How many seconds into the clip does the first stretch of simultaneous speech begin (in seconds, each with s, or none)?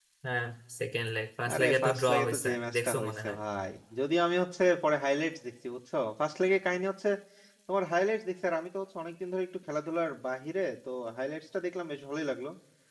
1.4 s